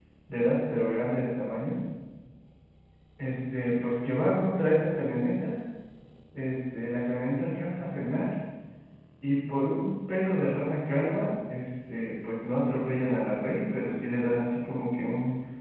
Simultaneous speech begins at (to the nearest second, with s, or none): none